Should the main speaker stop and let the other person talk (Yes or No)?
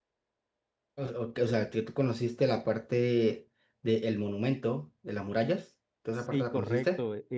Yes